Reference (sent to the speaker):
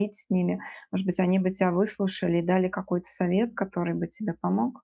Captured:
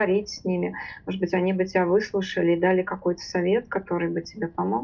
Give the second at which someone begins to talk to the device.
none

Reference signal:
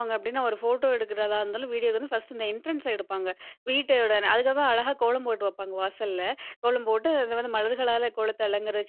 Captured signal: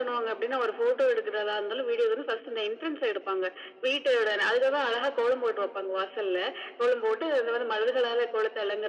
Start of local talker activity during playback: none

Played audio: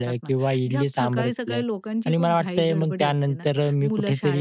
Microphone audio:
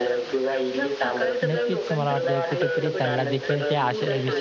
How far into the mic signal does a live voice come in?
1 s

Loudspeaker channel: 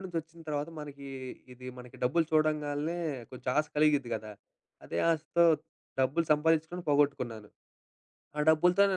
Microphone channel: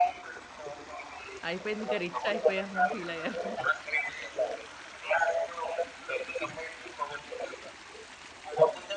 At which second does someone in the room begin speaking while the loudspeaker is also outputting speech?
1 s

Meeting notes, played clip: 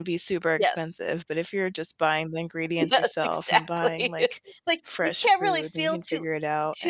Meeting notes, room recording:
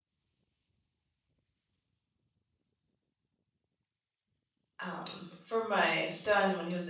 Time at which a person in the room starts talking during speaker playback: 5 s

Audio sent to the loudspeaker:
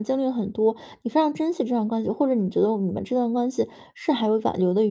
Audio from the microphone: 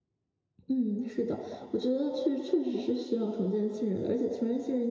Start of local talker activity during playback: 1 s

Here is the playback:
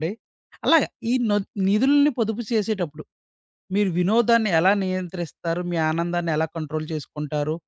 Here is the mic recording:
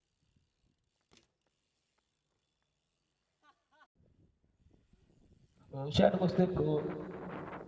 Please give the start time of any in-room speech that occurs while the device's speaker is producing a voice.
6 s

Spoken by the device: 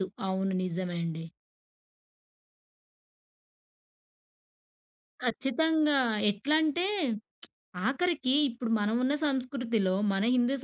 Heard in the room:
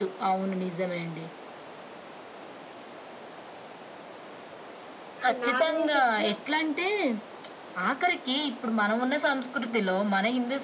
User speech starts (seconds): 5 s

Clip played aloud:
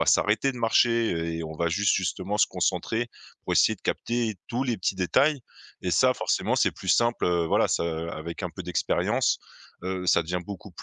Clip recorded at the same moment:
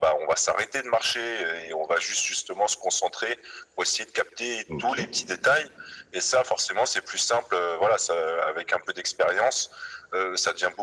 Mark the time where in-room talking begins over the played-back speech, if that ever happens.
5 s

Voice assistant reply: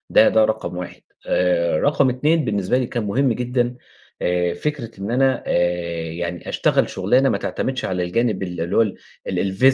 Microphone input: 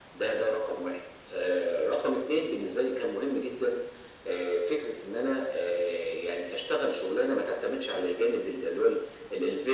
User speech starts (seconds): none

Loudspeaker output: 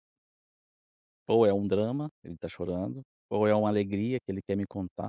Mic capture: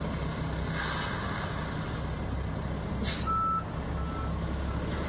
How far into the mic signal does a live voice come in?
none

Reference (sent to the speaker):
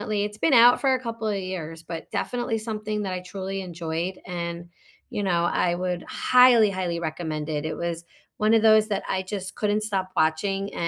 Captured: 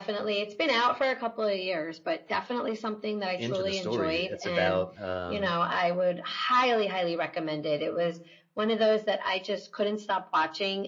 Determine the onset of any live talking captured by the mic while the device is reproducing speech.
3 s

